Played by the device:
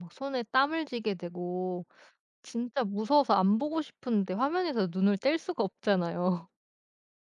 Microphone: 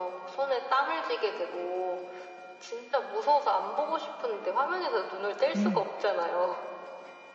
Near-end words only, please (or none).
네.